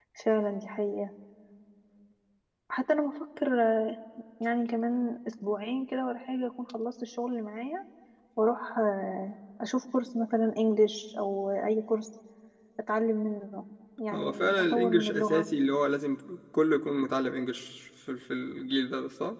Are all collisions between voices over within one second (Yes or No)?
No